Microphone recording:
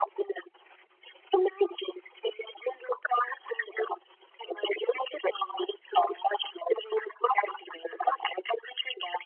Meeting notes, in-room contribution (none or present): none